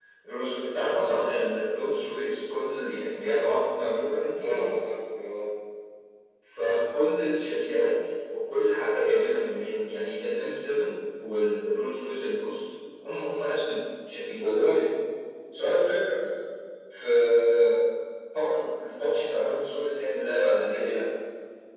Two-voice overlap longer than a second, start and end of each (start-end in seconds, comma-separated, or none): none